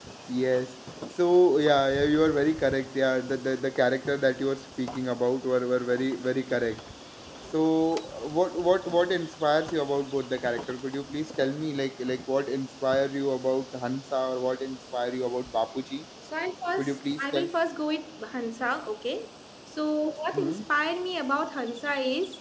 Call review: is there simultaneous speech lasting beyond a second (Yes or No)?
No